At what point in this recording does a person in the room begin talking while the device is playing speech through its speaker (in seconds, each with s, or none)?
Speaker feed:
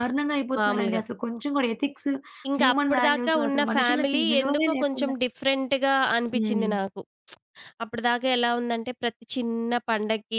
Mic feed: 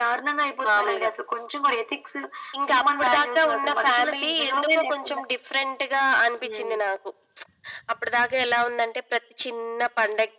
none